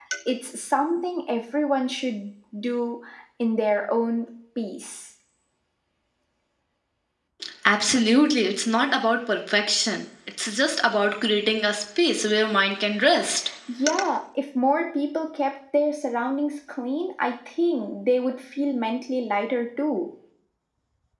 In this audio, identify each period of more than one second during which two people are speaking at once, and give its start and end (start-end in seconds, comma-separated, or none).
none